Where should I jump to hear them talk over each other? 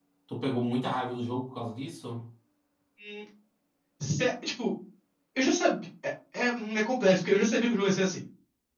none

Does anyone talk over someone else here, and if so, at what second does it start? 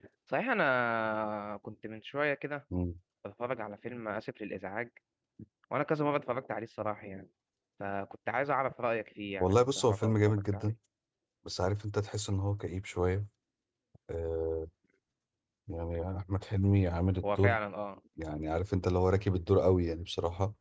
9.4 s

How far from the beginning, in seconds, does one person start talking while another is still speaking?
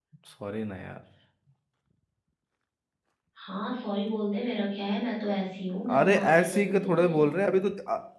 5.9 s

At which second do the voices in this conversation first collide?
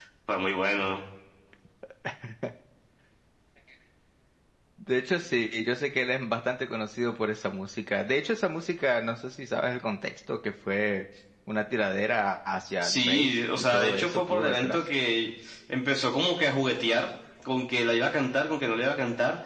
12.8 s

